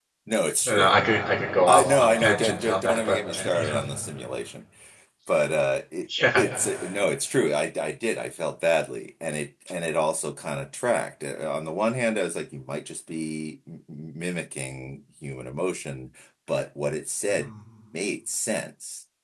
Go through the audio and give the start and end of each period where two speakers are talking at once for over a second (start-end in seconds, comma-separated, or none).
1.7-3.8